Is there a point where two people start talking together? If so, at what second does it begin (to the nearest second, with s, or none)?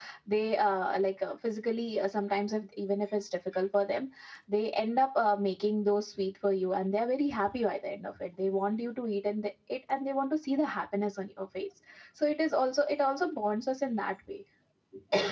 none